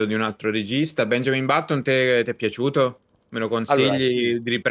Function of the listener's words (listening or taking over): listening